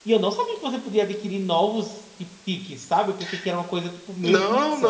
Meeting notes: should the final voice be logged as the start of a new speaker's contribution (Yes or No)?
Yes